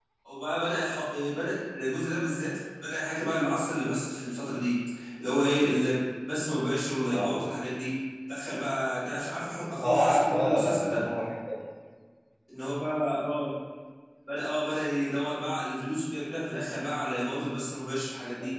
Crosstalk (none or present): present